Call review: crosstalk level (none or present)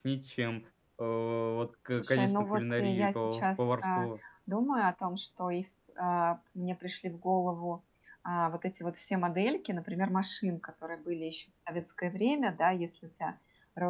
present